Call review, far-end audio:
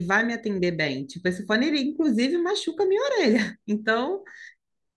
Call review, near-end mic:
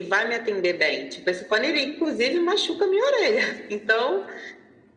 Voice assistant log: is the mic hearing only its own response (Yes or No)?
Yes